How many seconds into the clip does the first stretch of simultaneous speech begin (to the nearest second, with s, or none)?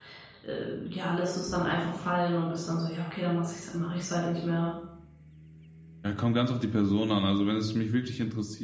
none